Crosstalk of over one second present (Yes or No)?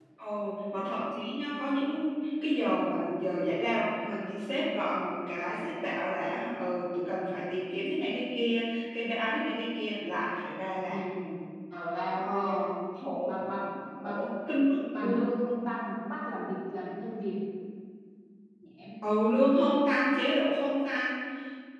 No